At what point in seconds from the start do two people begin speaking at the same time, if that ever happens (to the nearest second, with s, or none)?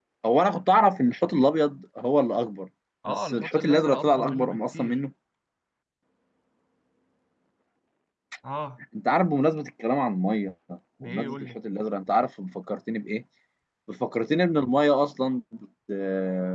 3 s